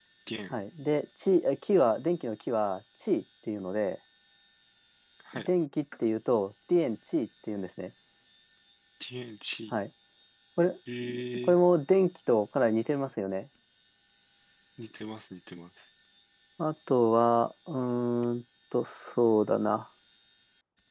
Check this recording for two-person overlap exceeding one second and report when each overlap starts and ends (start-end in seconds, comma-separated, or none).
none